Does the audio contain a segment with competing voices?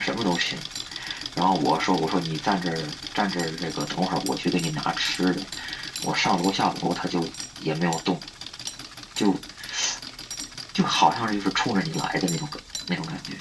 No

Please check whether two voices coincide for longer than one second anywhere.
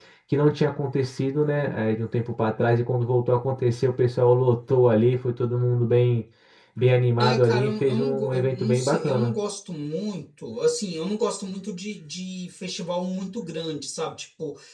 Yes, from 7.2 s

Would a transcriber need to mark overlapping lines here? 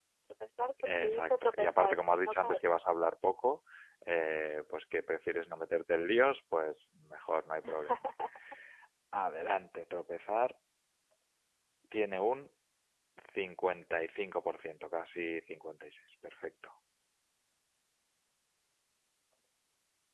Yes, from 1.0 s

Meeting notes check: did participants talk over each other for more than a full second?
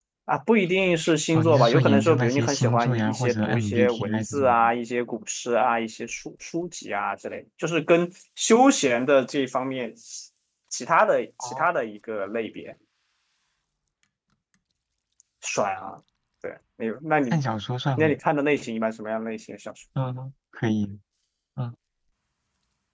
Yes, from 1.3 s

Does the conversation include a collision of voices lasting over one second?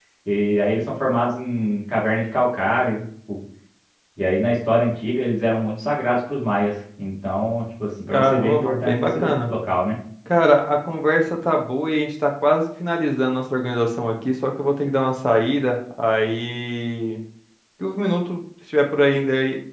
Yes, from 8.1 s

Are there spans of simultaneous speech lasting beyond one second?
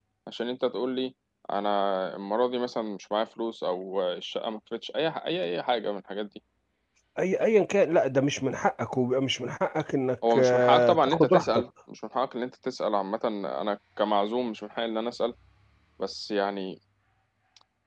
Yes, from 10.2 s

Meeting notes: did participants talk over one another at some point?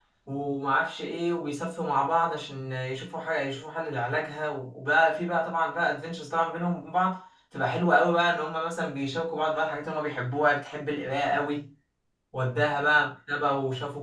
No

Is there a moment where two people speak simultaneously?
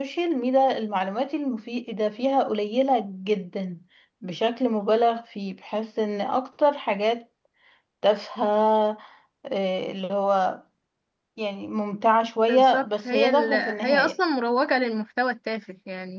Yes, from 12.5 s

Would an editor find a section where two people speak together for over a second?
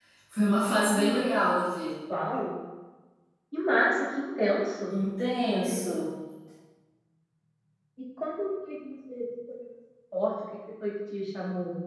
No

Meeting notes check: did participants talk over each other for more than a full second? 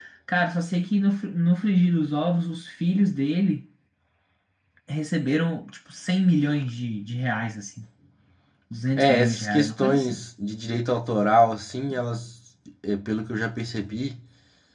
Yes, from 9.0 s

